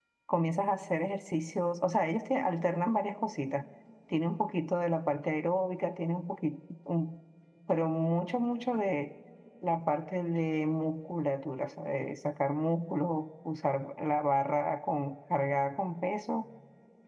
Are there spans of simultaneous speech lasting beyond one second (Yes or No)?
No